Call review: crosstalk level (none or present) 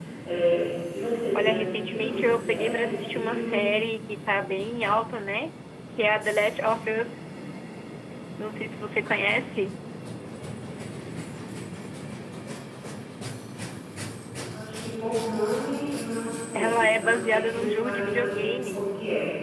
present